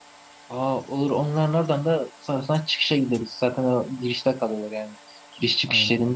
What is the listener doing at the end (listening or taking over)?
listening